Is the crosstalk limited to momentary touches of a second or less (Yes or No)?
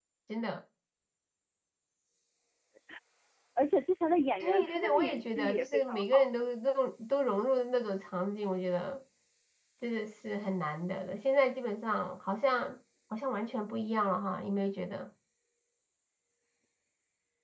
No